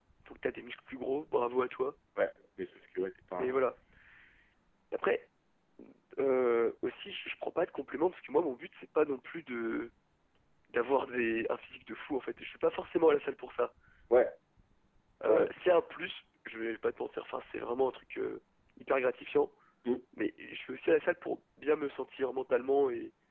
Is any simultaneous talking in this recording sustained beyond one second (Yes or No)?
No